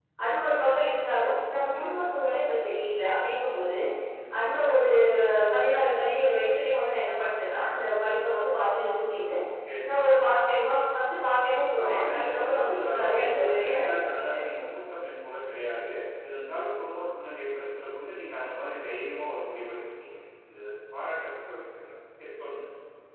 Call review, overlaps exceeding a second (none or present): present